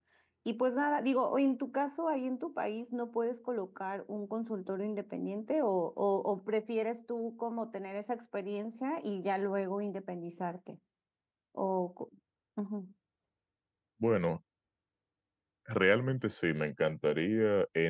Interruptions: none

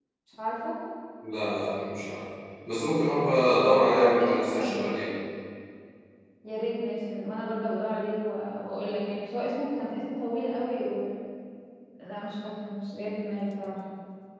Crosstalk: present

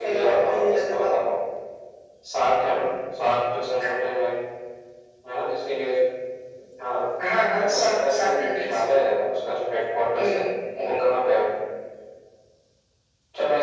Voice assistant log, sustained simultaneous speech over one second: present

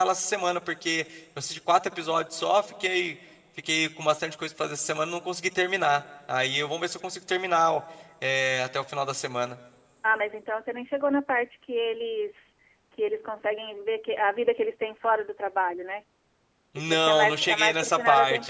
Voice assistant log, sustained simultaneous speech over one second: present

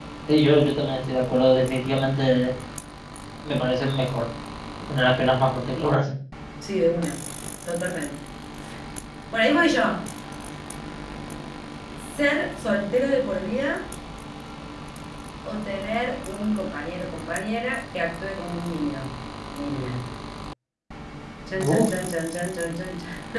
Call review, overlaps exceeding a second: none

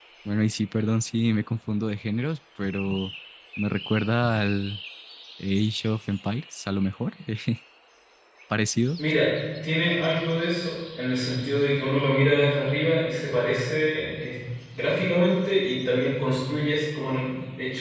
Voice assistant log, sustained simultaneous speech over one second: none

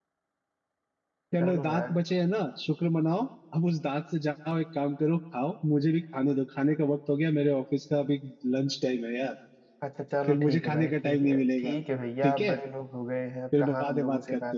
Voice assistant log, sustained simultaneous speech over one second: present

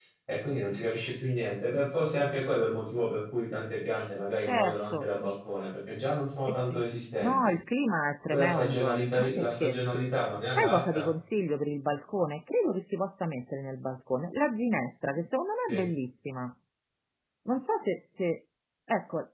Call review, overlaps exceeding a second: present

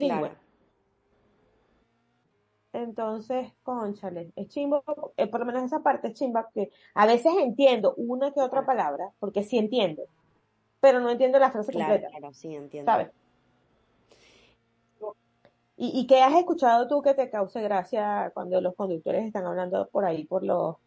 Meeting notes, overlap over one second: none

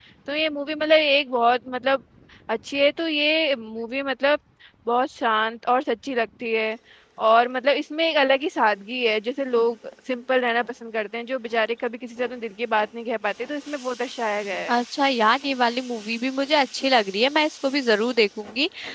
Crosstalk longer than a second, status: none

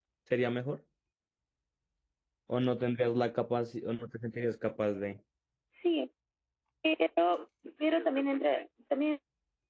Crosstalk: none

